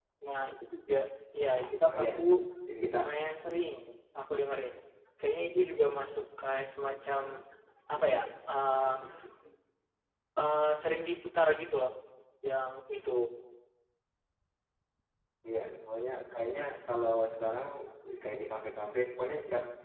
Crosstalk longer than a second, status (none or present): none